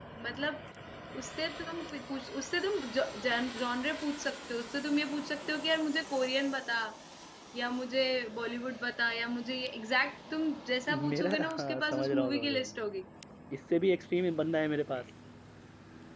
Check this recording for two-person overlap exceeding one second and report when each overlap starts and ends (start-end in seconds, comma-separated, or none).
11.1-12.7